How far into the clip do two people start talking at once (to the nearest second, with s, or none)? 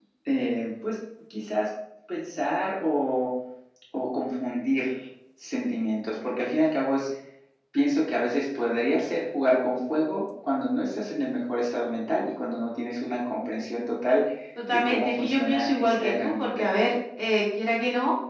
15 s